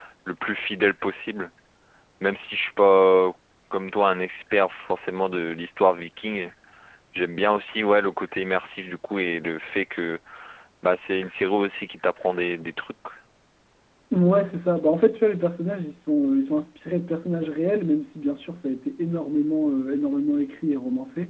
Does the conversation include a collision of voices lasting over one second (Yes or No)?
No